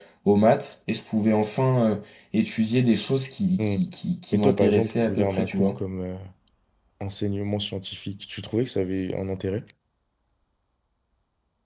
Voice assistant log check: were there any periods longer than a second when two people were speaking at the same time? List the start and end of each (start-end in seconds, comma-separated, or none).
4.3-5.7